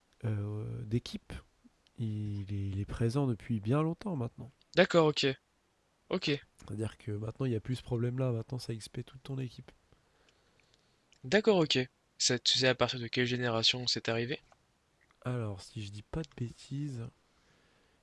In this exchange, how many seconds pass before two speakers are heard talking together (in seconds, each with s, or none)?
none